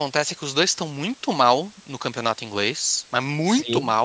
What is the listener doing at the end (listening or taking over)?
listening